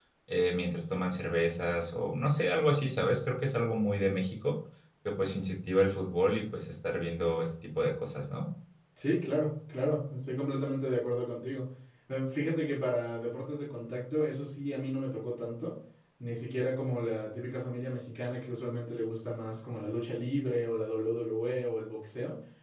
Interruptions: none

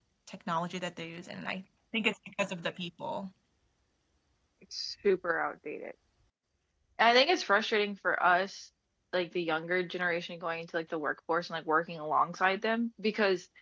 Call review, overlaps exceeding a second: none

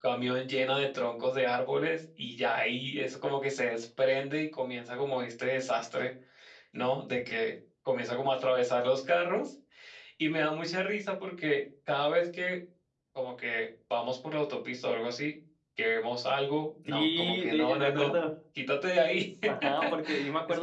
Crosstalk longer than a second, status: present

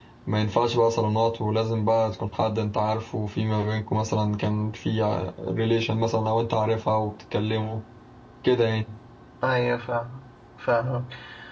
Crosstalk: none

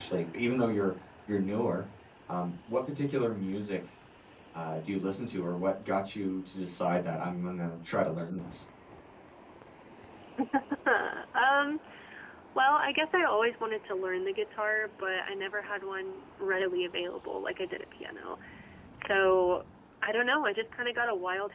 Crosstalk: none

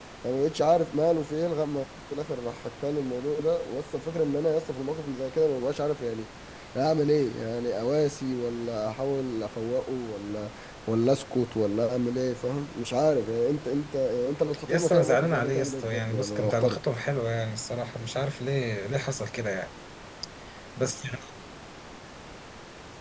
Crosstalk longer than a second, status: present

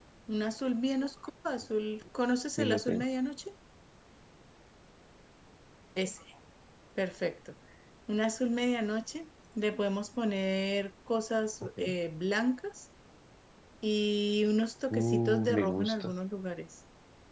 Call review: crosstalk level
present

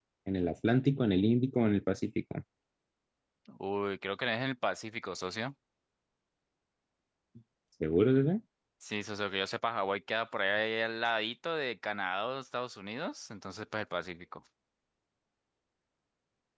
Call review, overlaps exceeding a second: none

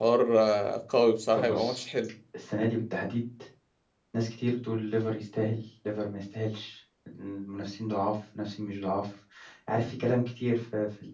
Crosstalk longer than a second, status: none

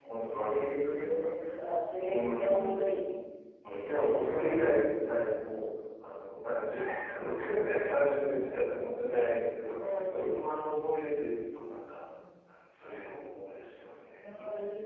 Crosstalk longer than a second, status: present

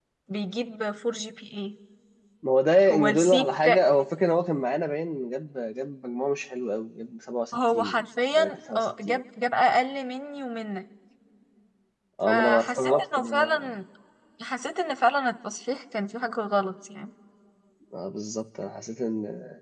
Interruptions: present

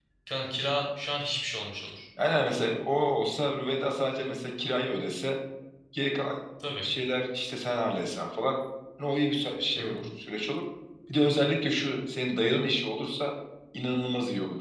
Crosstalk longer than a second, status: none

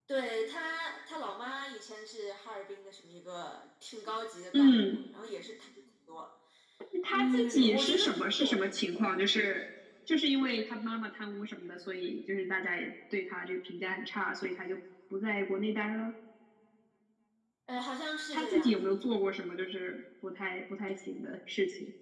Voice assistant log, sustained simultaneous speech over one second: present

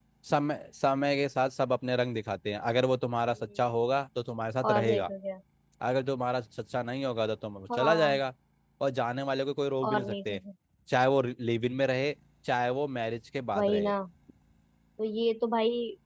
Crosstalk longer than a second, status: none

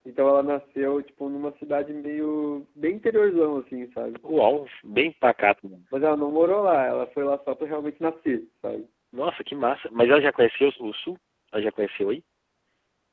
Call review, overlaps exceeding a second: none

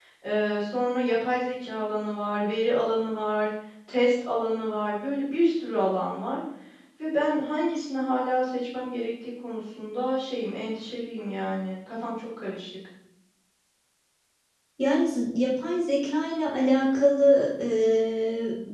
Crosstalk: none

